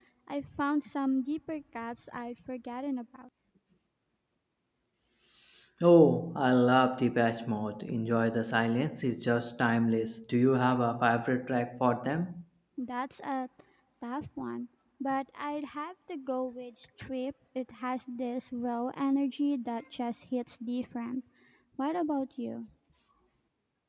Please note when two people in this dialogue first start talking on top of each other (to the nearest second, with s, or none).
none